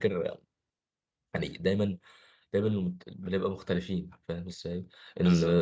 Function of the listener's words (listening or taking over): listening